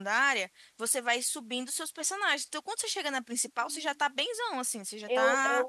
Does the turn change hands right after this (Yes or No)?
Yes